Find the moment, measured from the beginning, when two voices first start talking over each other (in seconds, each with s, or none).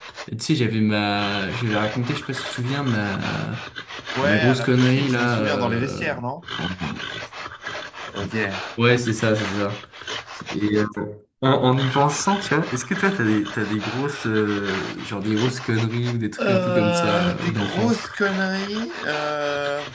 4.2 s